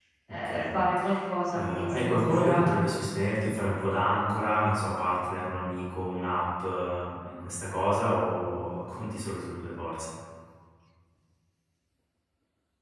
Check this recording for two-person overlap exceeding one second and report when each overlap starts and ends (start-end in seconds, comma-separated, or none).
1.5-2.8